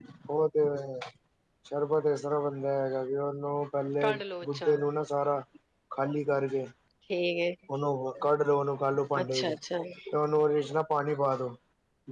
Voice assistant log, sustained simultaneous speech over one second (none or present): none